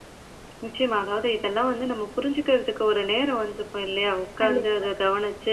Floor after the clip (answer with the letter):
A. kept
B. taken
A